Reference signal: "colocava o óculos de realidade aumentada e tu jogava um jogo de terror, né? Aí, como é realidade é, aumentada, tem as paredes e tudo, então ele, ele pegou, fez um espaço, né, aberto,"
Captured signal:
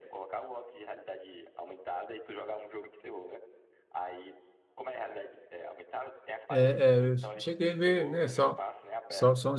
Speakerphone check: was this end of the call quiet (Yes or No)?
No